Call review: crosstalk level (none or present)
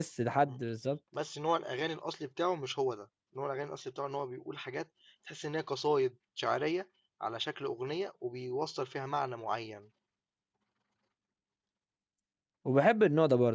none